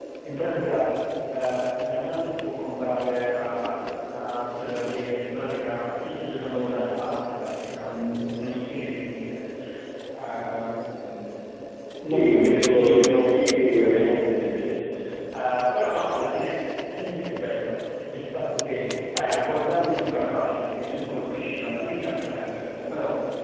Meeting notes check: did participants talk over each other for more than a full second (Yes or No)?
Yes